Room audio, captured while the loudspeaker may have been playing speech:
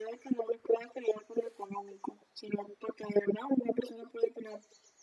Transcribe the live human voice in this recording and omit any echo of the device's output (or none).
none